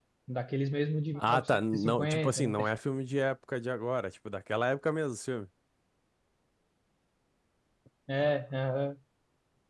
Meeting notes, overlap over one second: present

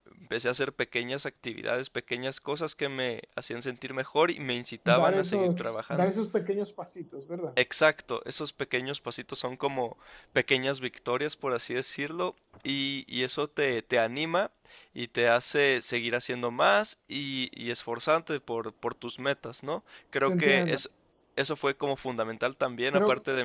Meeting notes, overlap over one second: present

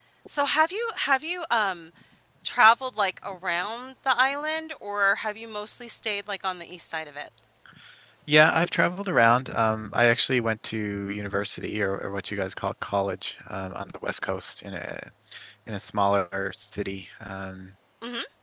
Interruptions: none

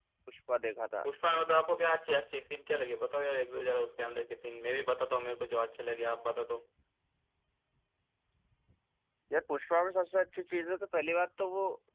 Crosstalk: none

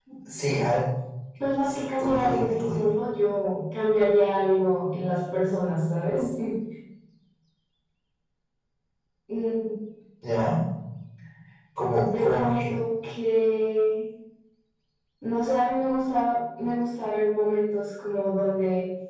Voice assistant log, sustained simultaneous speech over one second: present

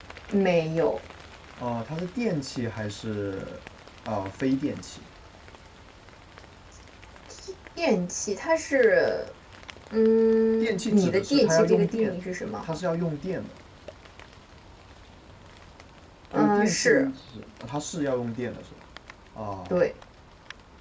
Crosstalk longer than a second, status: present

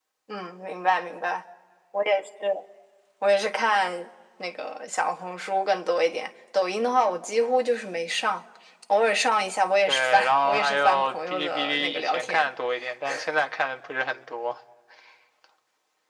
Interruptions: present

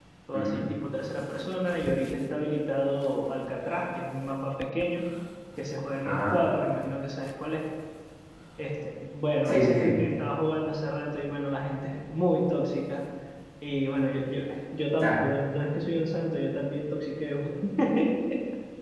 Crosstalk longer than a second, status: none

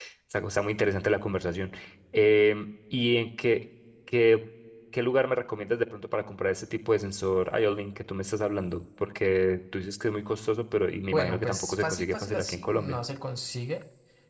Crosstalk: present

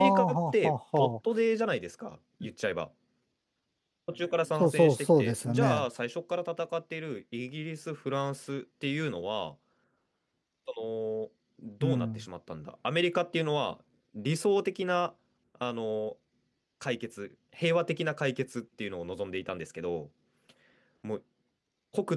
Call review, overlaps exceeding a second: present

